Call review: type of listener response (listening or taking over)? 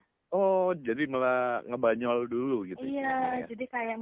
taking over